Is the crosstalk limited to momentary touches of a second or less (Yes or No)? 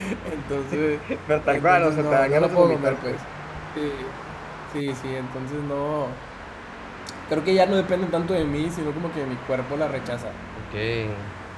No